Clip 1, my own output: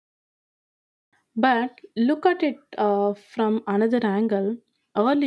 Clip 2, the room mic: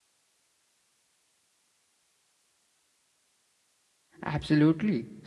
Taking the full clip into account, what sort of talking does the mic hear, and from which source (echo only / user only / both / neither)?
user only